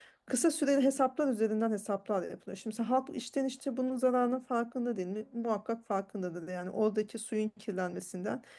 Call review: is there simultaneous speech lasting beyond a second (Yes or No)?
No